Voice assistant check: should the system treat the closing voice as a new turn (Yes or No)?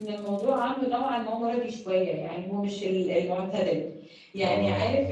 No